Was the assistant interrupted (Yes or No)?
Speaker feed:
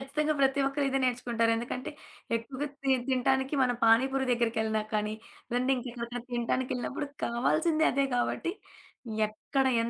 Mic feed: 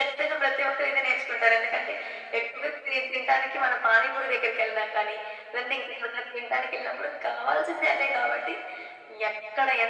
No